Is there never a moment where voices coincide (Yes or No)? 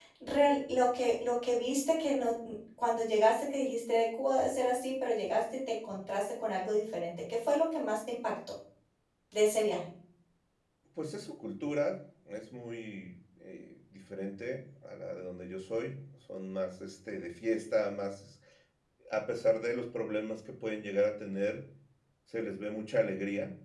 Yes